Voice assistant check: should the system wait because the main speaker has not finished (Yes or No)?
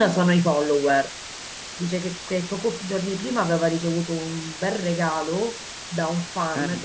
Yes